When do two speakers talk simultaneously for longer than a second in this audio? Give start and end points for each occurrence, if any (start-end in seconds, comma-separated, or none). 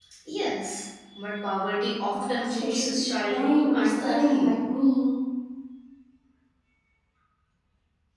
2.1-4.5